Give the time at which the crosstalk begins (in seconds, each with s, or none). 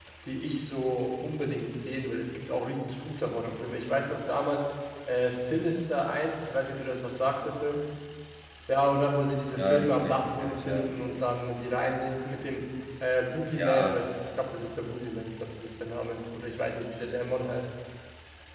9.6 s